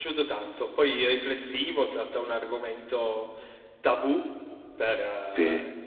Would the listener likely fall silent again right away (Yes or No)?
Yes